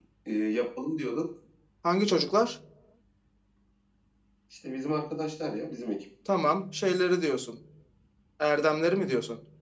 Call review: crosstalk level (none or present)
none